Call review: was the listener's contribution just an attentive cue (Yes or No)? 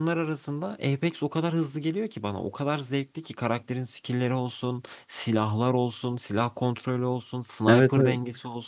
No